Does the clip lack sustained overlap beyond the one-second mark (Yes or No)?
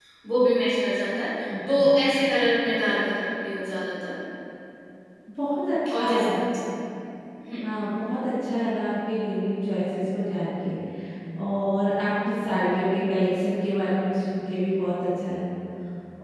Yes